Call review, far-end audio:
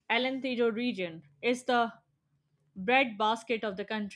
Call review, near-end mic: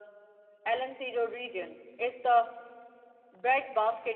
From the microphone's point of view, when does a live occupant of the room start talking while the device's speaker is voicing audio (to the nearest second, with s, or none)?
none